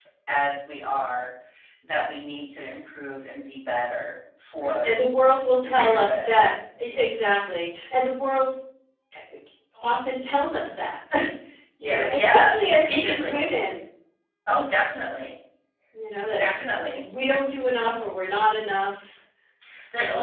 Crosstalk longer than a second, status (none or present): present